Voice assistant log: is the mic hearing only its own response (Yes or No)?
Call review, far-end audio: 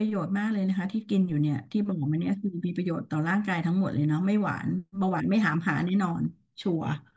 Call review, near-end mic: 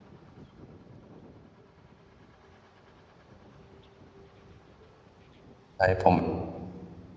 No